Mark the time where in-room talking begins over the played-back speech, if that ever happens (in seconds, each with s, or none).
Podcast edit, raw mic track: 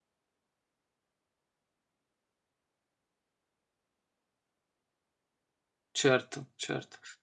6.0 s